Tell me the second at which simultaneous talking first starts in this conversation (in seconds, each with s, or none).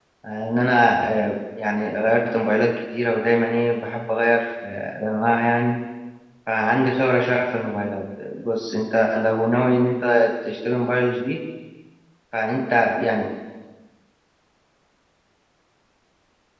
none